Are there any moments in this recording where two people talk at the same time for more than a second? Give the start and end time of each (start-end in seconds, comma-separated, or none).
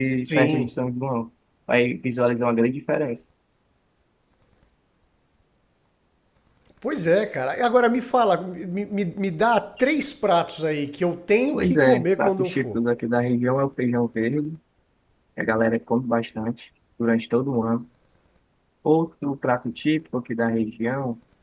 11.5-12.8